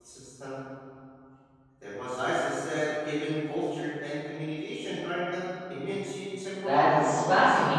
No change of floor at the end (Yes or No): No